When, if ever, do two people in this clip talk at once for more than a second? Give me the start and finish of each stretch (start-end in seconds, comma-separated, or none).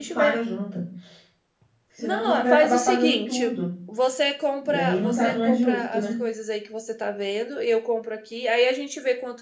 2.0-3.5, 4.6-6.0